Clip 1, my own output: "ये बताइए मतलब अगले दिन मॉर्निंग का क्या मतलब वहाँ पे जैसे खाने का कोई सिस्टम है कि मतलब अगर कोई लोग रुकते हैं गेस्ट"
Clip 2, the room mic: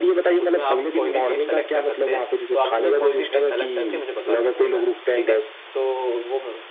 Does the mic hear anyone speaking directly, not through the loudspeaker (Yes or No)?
Yes